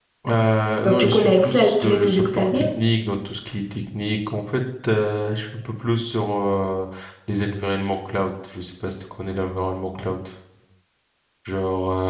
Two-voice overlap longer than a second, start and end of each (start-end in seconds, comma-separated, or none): 0.8-2.6